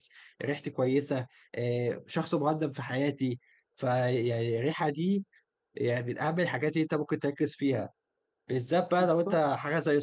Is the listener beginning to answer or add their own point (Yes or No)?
No